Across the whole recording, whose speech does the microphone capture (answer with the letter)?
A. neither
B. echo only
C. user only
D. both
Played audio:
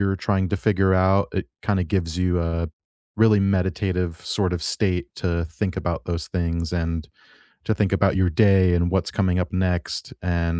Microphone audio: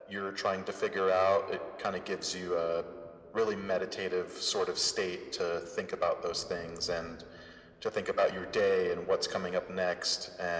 B